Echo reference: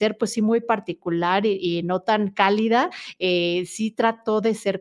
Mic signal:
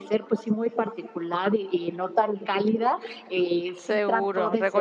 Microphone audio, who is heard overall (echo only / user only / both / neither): both